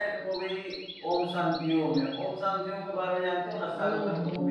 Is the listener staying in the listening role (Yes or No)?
No